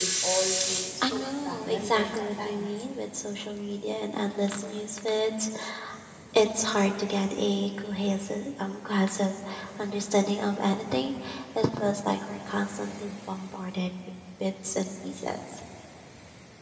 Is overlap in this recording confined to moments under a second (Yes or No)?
No